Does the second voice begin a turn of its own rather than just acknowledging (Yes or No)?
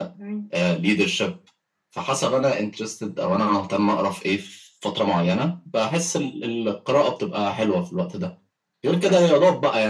No